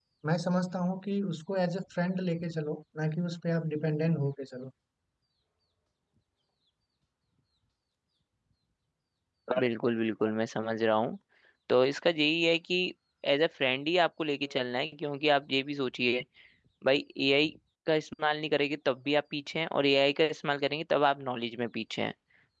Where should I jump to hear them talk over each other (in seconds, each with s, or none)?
none